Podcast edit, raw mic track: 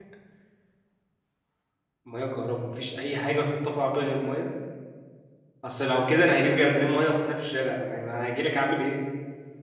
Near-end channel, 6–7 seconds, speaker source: user only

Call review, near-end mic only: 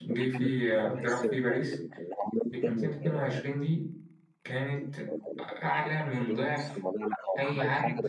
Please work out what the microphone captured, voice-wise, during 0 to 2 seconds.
both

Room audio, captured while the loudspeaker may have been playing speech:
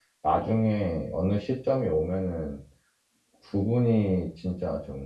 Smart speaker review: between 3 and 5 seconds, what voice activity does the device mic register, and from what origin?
user only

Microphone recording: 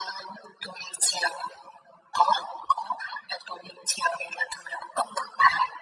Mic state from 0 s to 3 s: echo only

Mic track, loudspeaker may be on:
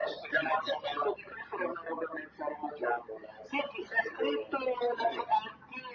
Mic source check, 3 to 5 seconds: echo only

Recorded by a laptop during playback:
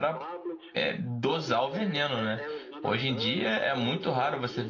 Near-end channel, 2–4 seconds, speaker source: both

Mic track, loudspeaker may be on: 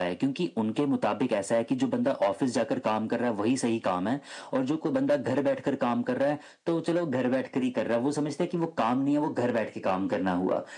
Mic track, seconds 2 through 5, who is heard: echo only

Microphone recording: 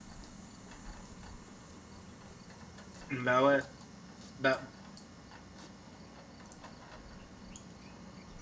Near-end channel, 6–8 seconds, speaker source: neither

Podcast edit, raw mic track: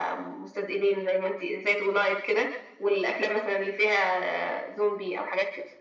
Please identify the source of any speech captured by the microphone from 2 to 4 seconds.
echo only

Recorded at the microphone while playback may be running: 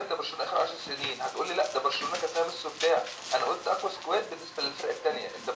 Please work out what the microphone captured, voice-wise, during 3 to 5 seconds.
echo only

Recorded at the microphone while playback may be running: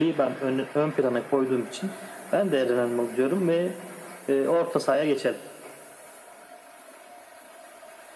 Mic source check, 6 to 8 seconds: neither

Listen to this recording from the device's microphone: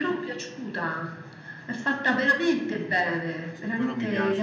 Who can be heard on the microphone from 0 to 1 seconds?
echo only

